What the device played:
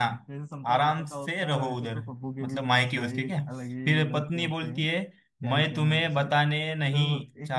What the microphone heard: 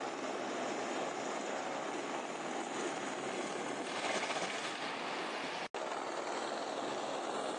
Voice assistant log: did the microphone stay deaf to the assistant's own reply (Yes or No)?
Yes